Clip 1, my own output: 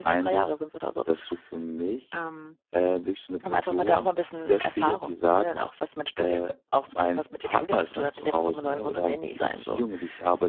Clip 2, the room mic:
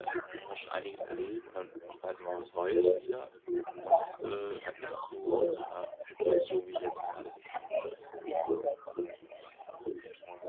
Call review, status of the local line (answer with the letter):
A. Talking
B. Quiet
A